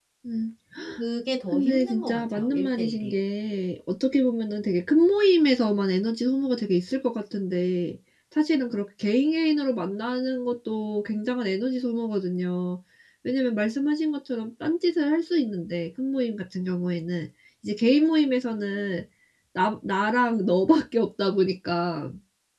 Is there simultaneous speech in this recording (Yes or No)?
Yes